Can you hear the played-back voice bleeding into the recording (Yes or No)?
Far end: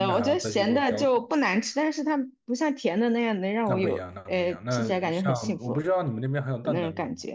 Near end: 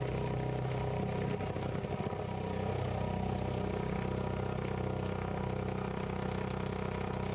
No